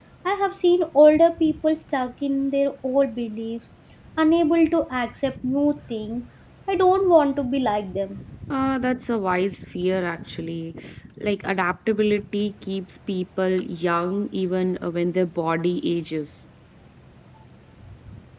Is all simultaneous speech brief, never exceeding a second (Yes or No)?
Yes